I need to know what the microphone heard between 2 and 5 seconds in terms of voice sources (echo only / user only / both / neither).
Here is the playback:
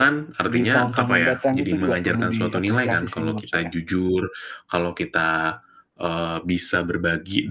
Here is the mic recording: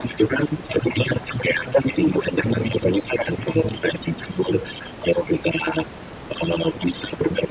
echo only